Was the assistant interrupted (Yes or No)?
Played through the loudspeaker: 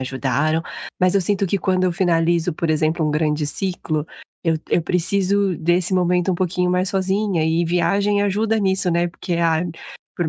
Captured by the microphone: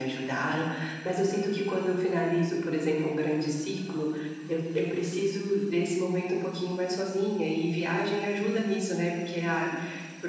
No